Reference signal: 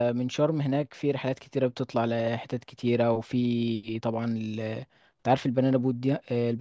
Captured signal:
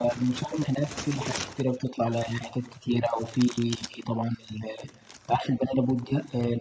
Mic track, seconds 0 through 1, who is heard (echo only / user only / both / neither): echo only